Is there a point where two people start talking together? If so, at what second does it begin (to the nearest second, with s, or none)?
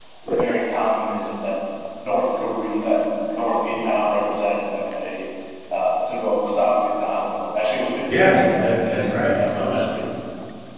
8 s